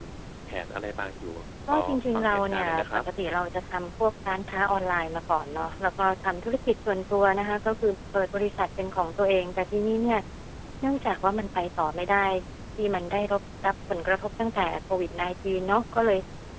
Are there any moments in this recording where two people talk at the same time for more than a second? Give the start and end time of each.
1.7-3.0

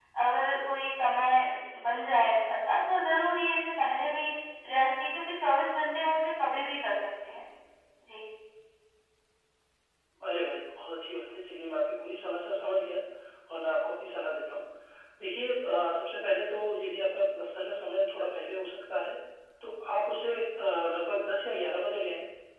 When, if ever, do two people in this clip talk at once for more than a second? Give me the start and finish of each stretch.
none

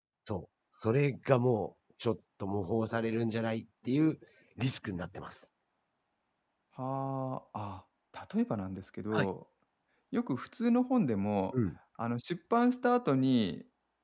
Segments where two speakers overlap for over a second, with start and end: none

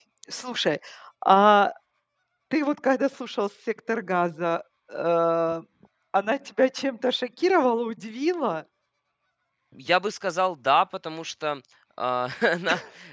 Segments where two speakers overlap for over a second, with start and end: none

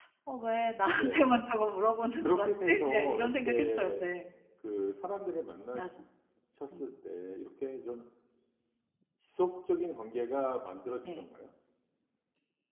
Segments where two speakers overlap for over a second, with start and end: 2.2-4.1

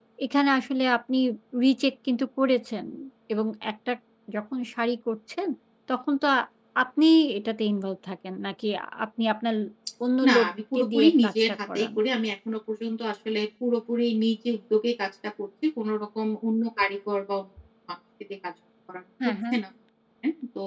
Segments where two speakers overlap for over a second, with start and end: 10.3-11.9

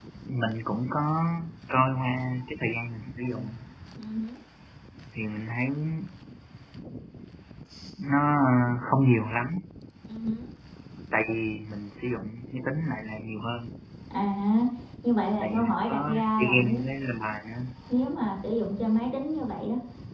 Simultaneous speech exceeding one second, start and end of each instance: 15.4-16.8

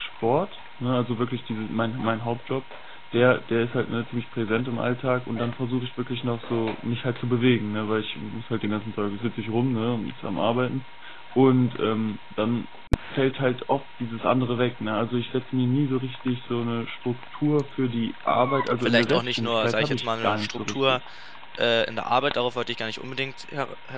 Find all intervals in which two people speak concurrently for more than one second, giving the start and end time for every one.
18.8-21.0

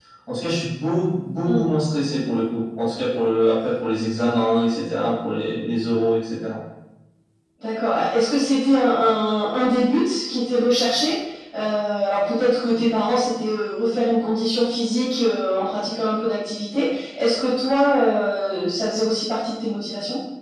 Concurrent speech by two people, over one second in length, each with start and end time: none

